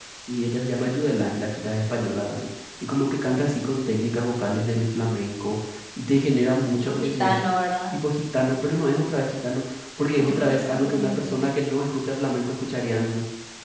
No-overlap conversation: No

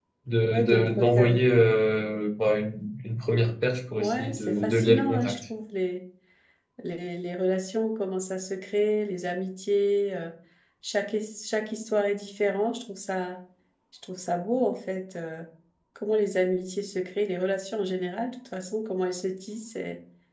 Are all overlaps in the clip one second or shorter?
No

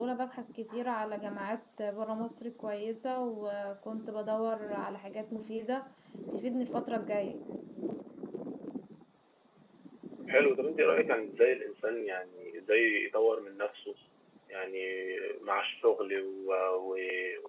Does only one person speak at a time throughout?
Yes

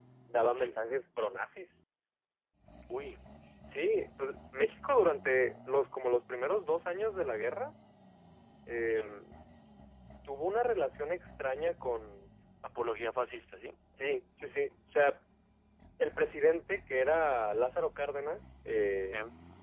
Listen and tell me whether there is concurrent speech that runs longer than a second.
No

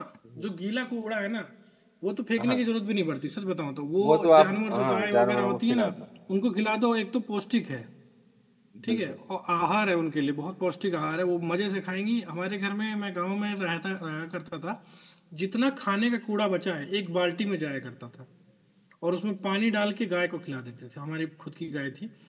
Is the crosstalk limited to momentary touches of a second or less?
No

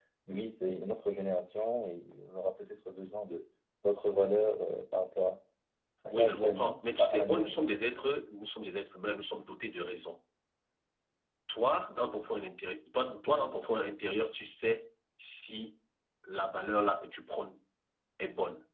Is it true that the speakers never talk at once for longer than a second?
No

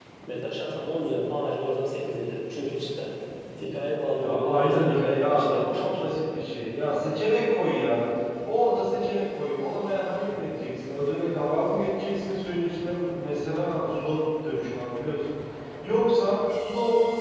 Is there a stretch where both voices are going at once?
Yes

